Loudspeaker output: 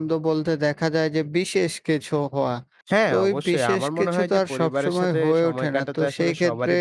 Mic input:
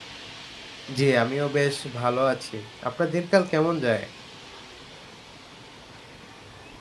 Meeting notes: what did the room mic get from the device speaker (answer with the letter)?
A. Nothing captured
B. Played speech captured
A